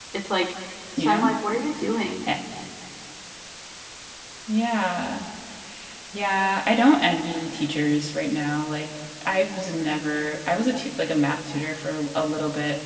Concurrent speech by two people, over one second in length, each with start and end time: none

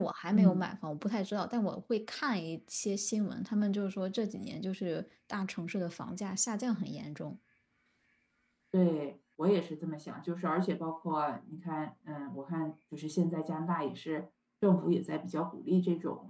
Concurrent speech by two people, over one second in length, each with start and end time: none

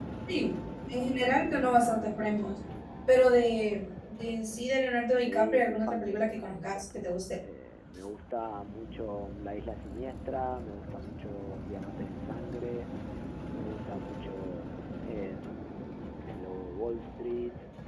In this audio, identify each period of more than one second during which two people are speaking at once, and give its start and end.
5.2-7.2

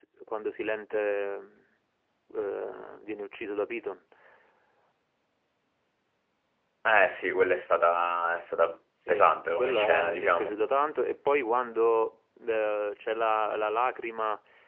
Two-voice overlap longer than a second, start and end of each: 9.1-10.5

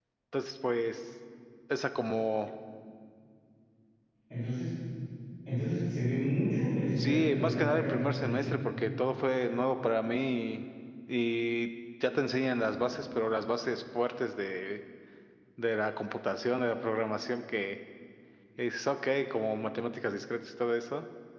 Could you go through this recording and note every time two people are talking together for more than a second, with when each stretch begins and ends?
7.0-8.4

